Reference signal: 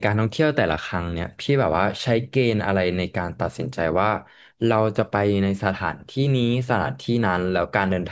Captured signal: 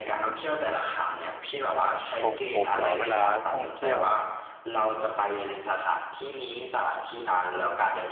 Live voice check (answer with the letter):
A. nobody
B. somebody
B